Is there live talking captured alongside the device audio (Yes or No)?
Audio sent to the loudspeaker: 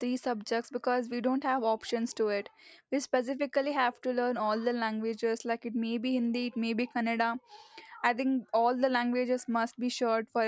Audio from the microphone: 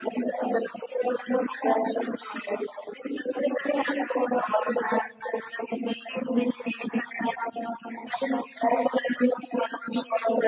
No